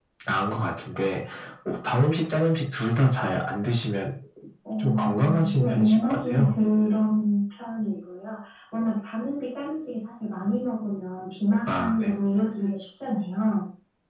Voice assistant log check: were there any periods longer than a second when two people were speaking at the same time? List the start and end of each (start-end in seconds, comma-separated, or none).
4.8-6.5